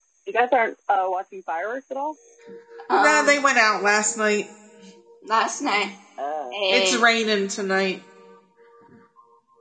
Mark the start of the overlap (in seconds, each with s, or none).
none